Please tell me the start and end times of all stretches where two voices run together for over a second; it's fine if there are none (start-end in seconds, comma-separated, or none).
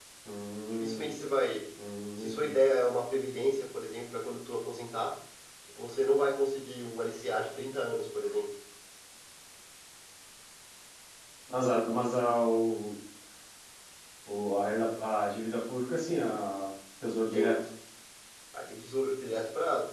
none